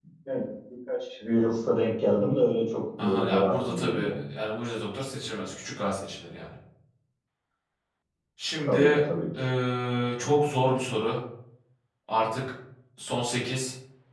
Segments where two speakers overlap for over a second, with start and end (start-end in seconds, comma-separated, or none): 3.0-4.3